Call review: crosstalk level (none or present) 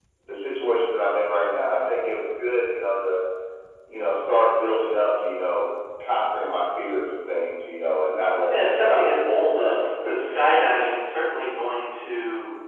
present